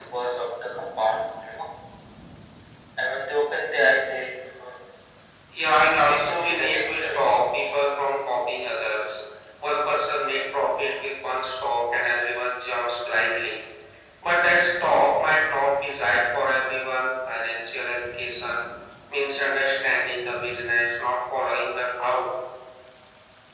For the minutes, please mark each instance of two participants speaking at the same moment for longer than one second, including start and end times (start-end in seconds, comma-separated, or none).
6.0-7.4